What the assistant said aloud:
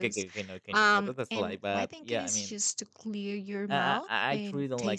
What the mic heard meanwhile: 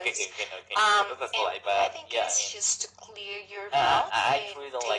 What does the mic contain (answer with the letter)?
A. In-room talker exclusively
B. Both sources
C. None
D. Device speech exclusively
D